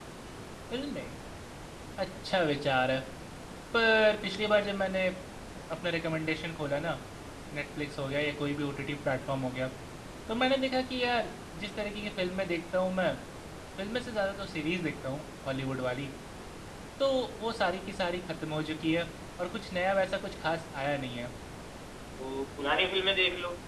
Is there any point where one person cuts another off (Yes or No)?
No